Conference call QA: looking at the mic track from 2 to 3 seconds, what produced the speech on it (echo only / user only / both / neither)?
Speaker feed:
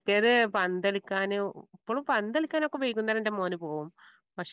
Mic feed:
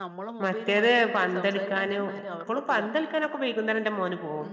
both